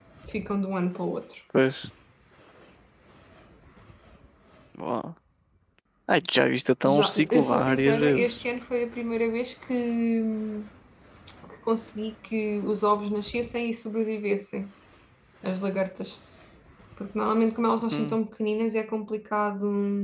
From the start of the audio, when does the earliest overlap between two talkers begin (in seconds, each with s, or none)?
6.8 s